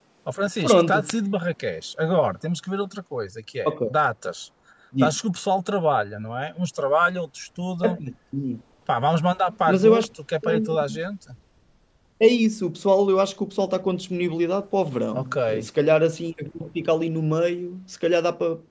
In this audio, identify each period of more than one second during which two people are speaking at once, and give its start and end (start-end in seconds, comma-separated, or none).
none